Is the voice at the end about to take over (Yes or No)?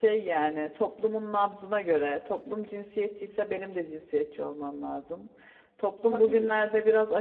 No